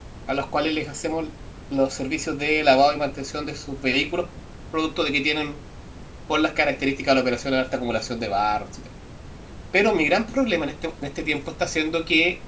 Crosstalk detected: No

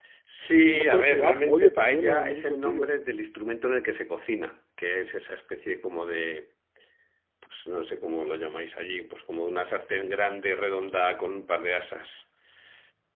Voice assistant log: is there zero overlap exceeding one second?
No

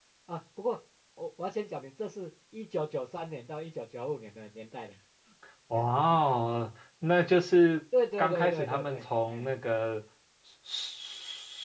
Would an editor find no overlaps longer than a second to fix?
No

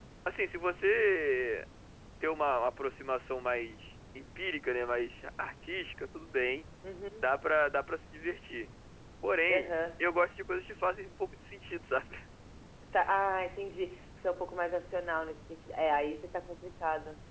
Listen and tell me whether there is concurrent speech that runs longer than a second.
No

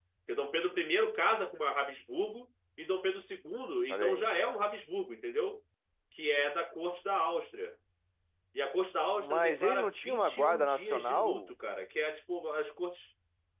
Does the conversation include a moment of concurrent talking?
Yes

